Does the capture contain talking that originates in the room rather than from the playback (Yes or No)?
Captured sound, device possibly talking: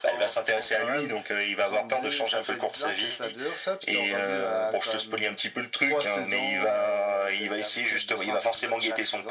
No